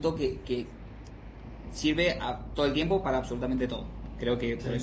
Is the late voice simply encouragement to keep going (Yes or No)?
Yes